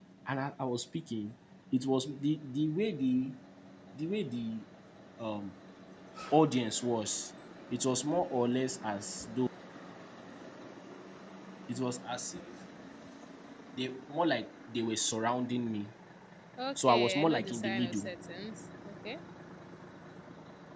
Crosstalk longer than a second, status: present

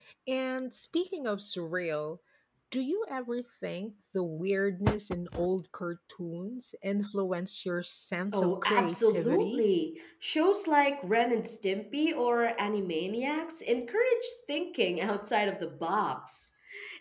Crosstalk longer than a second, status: present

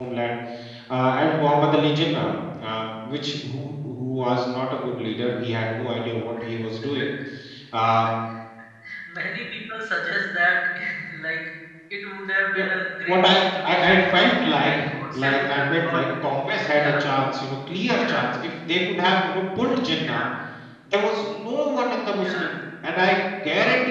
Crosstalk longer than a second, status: present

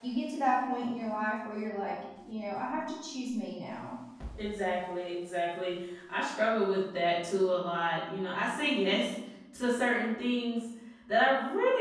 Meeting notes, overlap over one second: none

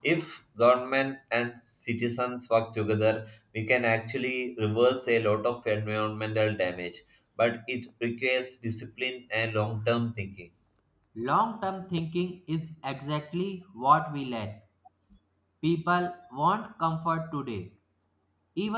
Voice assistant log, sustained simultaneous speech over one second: none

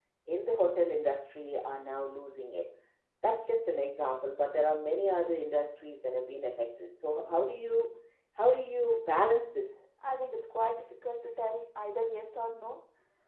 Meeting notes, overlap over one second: none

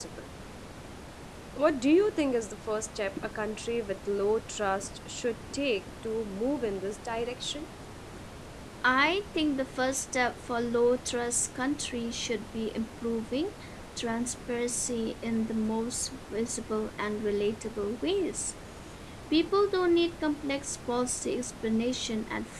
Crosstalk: none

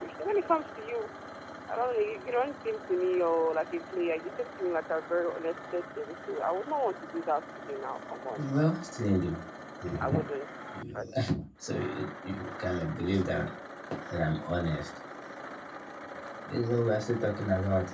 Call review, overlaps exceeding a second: none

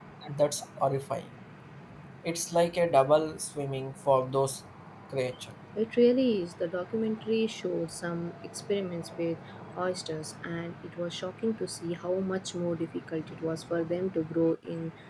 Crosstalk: none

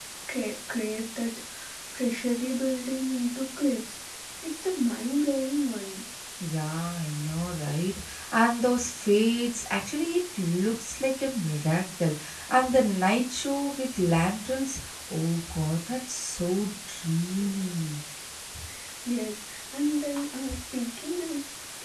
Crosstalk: none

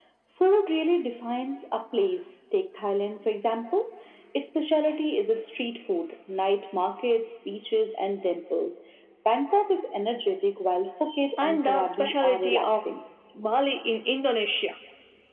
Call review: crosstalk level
present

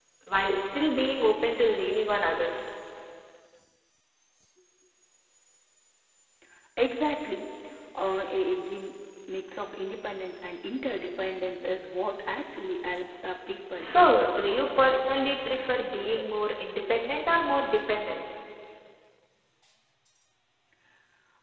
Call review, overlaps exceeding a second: none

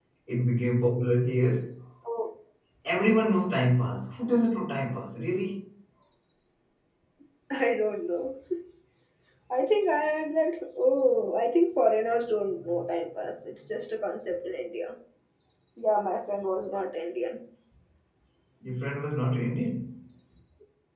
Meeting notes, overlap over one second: none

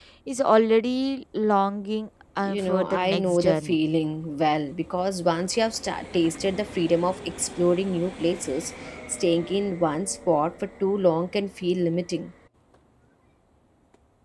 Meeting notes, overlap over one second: present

